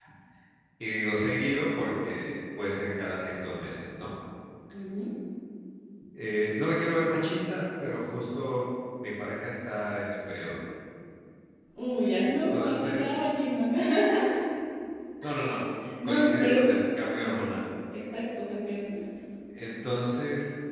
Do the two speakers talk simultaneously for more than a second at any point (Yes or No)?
Yes